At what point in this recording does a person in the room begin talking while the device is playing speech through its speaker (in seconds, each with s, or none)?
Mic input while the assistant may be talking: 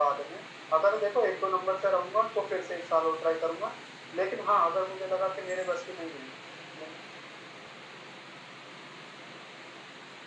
none